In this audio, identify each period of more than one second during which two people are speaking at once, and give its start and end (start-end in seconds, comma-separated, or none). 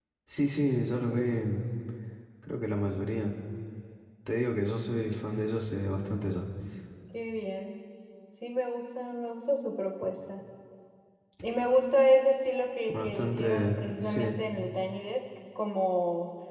12.9-14.4